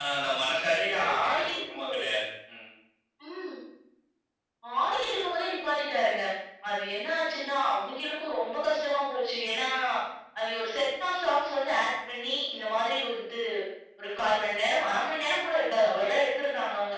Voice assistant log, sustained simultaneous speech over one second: present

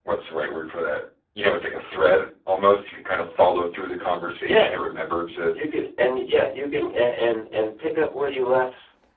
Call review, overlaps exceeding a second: none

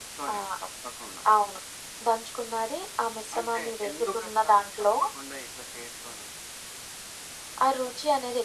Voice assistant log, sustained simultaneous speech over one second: present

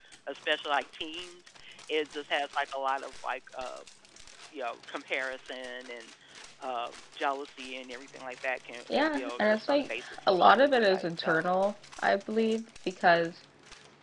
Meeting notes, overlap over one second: present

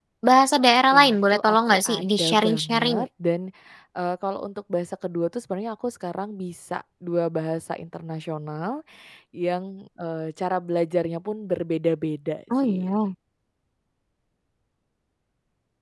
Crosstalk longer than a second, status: present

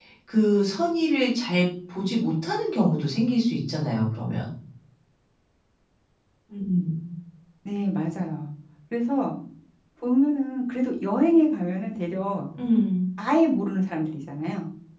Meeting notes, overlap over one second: none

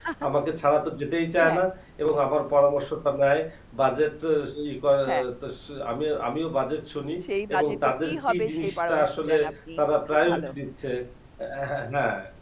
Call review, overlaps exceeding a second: present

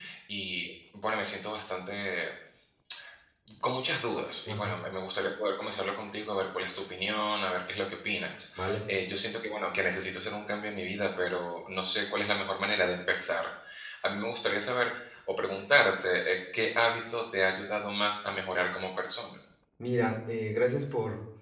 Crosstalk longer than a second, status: none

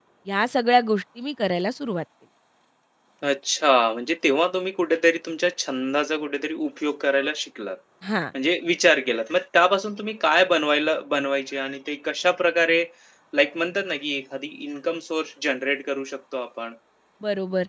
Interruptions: none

